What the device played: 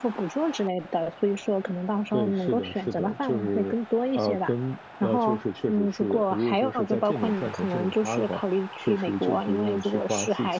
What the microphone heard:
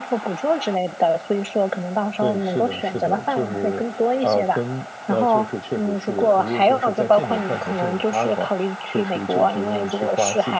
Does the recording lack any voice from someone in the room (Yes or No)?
Yes